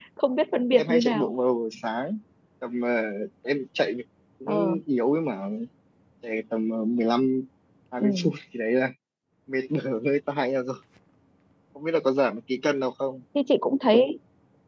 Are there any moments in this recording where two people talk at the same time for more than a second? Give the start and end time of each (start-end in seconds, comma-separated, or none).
none